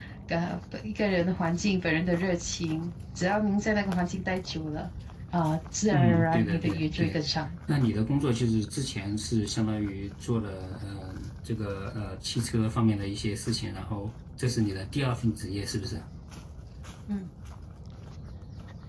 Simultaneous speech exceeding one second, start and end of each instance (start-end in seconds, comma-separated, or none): 5.9-7.2